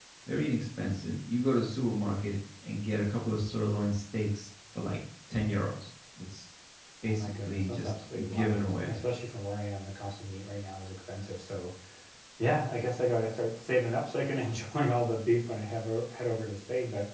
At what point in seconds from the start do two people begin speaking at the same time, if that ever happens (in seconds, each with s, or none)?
7.1 s